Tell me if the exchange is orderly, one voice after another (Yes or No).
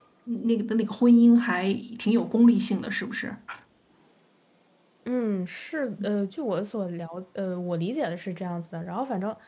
Yes